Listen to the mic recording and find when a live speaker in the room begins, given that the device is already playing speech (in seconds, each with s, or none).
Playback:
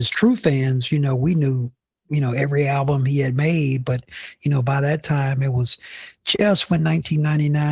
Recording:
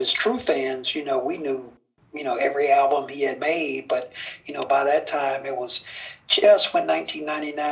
none